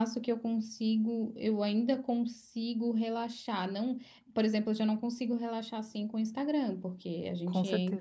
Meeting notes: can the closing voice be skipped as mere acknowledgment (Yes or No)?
Yes